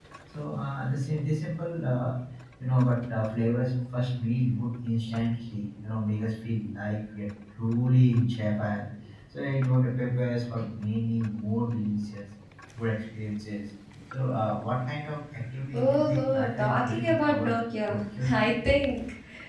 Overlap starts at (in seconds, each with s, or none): 15.7 s